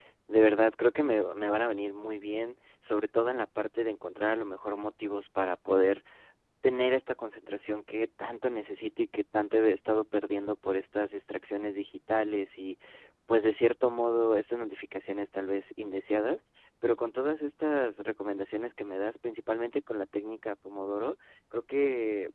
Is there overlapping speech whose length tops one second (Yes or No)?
No